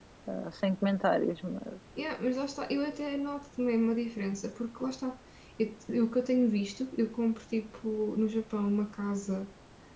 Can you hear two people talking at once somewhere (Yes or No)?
No